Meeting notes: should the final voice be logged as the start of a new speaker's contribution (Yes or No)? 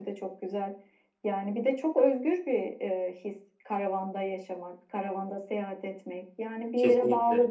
No